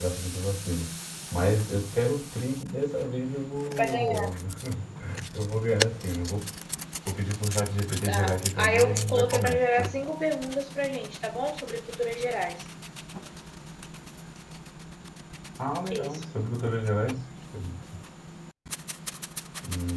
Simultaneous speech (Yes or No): Yes